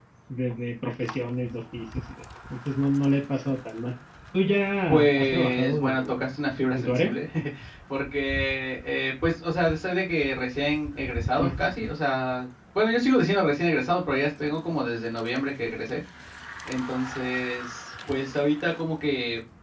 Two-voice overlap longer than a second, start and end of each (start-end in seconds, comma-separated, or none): 4.9-6.1